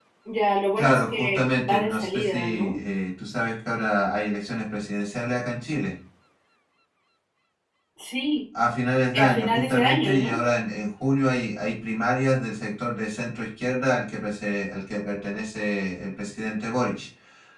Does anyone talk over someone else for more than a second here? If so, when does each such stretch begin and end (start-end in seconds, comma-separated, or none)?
0.8-2.8, 9.1-10.4